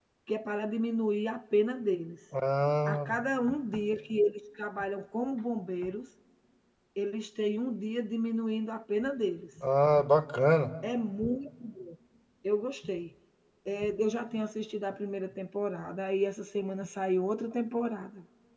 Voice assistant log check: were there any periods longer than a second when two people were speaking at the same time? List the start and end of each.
none

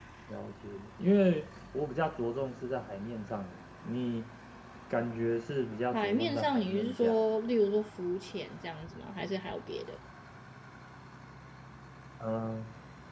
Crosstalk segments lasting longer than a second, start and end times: 5.9-7.2

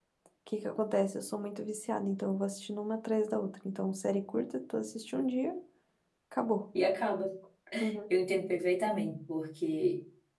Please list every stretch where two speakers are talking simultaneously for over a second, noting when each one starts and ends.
none

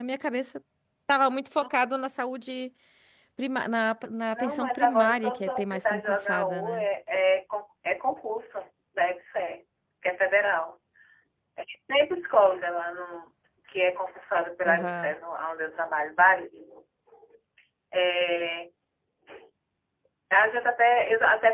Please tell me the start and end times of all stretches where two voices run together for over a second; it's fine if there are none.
4.3-6.8

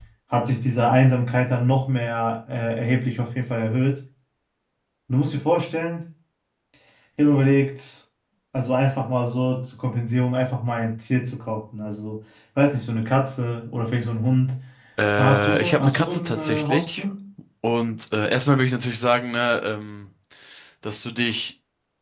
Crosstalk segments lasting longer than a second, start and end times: 15.2-17.1

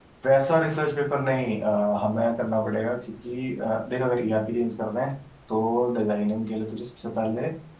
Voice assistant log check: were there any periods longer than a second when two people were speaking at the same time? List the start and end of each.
none

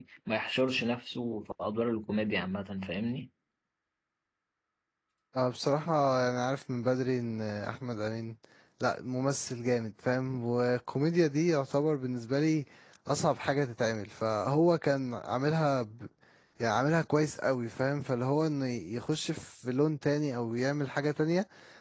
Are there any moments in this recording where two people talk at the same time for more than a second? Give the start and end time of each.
none

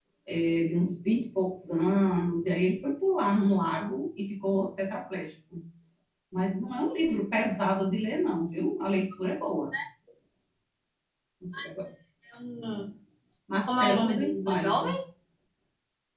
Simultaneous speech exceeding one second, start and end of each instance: 13.7-14.9

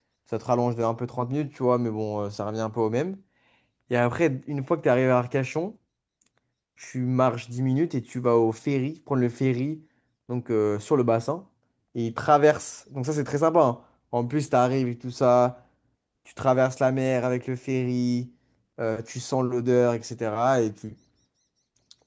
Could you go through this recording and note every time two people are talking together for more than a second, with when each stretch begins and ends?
none

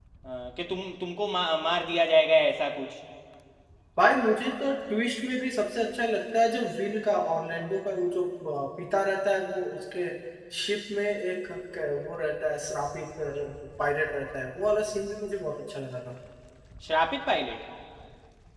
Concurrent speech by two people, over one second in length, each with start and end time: none

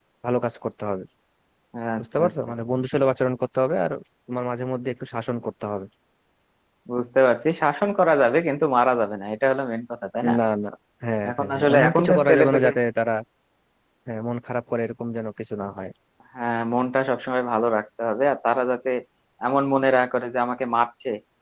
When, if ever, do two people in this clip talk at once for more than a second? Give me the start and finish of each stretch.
11.3-12.7

